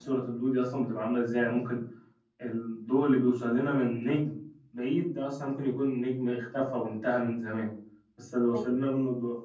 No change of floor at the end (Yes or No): Yes